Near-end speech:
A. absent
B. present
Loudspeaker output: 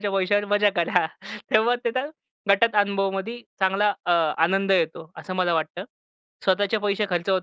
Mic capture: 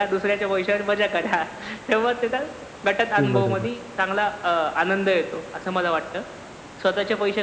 B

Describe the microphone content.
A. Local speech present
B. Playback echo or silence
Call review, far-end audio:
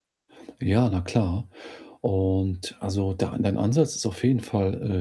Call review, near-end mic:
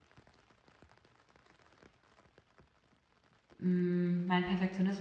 A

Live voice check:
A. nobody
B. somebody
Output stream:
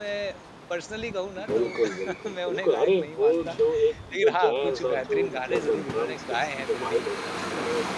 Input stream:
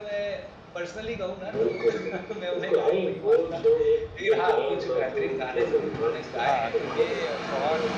B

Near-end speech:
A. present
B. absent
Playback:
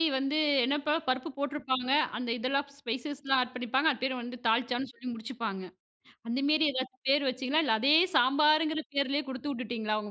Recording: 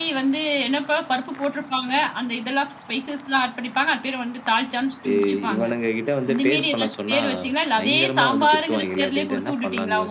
A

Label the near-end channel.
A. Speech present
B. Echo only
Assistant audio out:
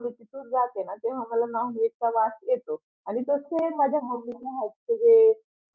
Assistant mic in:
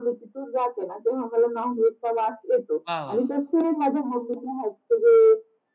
A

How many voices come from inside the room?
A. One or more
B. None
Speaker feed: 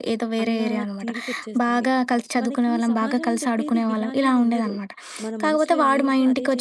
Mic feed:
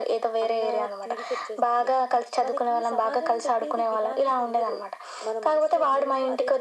B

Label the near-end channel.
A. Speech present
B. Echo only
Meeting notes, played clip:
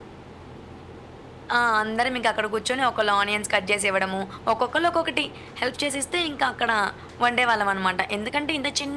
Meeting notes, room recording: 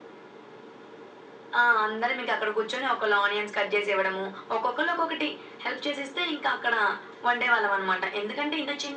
B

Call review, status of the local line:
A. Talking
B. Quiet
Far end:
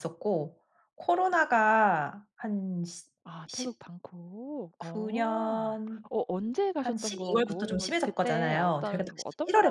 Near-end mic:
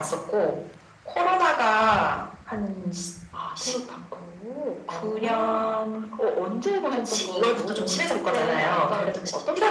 B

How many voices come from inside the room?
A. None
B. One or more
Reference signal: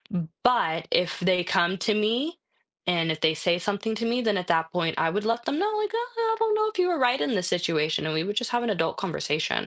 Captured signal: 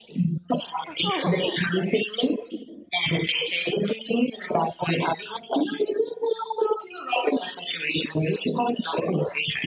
B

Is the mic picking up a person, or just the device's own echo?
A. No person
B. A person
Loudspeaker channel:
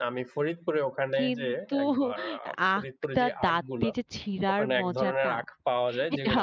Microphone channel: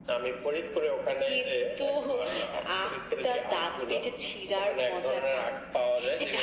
A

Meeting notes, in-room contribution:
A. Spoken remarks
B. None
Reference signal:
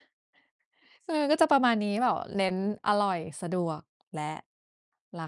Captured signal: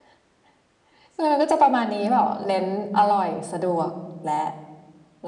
B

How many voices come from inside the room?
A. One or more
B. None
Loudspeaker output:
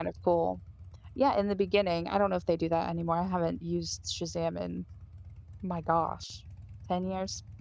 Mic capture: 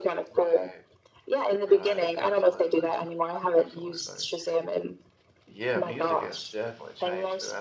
A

